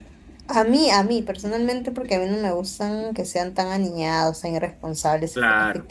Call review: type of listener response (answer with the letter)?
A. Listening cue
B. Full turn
A